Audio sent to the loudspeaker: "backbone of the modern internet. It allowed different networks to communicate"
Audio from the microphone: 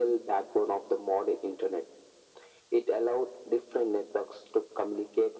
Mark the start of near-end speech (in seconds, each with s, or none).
none